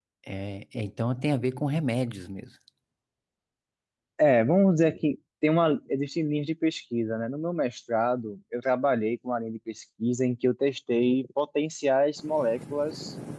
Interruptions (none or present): none